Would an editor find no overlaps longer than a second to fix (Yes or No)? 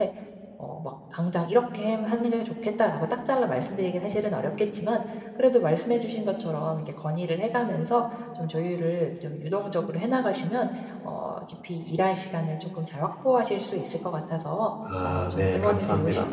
No